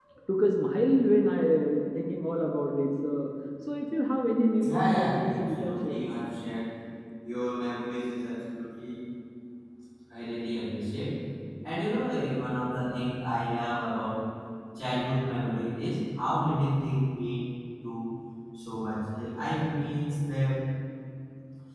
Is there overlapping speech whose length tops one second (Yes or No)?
Yes